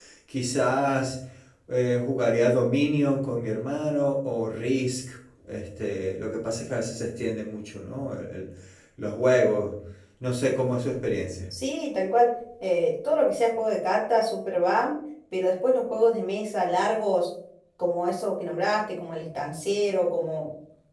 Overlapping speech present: No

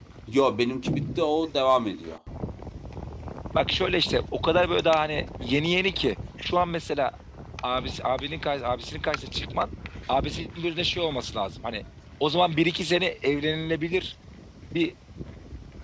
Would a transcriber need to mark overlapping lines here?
No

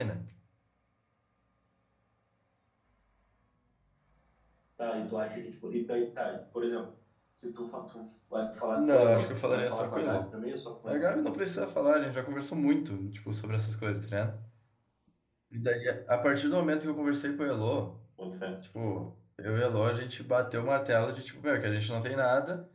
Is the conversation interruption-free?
No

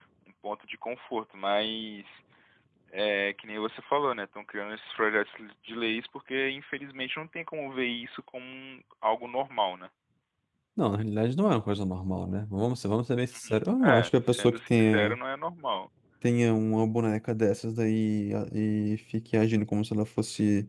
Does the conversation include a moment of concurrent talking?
Yes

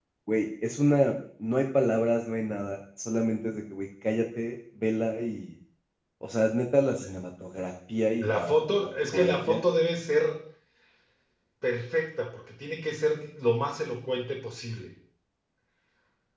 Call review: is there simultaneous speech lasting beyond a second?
Yes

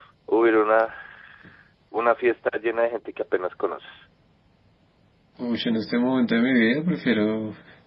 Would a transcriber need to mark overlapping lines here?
No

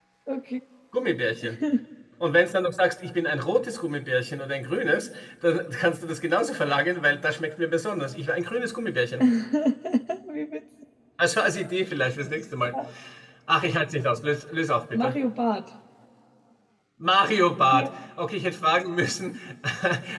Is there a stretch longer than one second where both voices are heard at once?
No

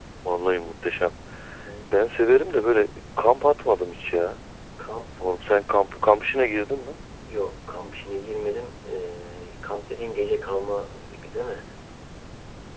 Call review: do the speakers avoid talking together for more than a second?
Yes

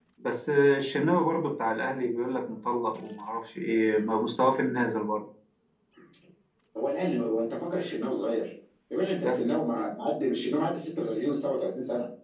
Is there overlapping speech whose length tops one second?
No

